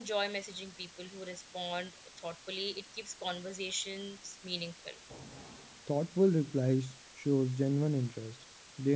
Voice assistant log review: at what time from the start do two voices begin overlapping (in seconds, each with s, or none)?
none